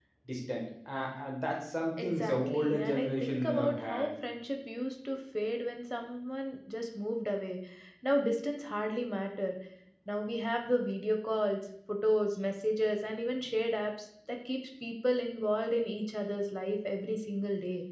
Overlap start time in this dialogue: 2.0 s

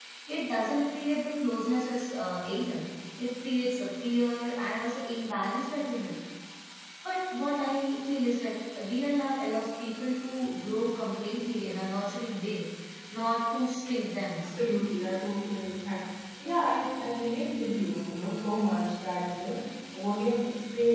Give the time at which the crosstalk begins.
none

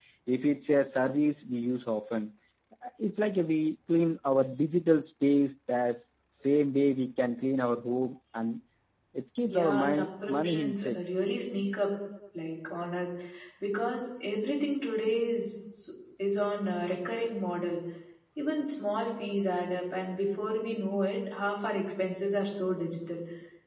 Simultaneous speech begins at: 9.5 s

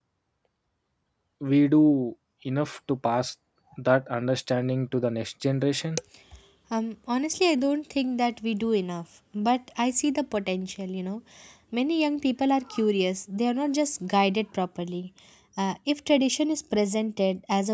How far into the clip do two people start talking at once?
none

